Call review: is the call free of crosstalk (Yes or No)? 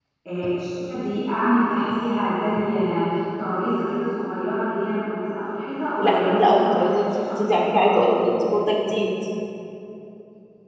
No